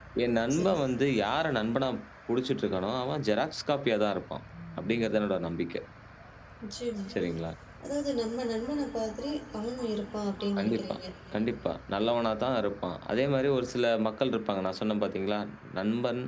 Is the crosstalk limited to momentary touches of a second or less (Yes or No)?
Yes